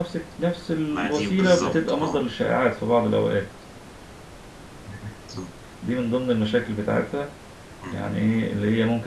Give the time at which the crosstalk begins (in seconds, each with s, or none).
0.9 s